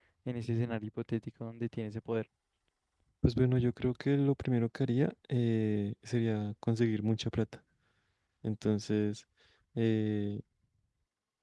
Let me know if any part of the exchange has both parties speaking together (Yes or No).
No